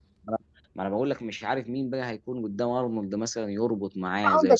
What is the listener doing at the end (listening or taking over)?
taking over